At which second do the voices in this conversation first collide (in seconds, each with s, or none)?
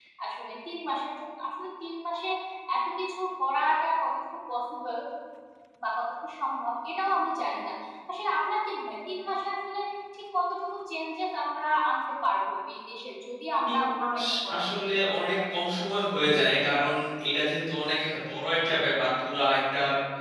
13.7 s